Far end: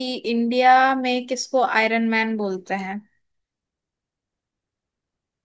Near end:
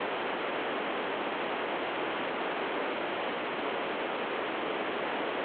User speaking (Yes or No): No